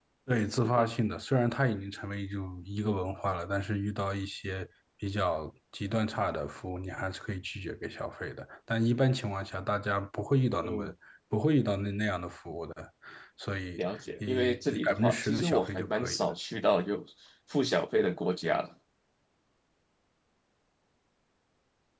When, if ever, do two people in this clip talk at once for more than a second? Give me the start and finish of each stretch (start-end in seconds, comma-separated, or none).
13.8-16.3